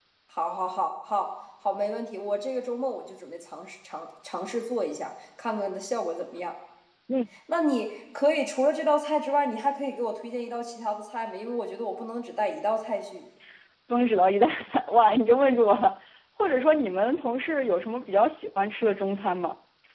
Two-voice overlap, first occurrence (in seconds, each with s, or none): none